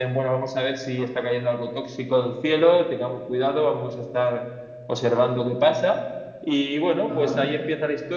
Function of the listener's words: listening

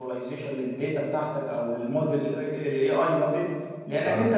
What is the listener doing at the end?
listening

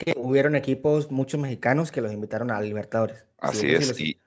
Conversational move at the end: taking over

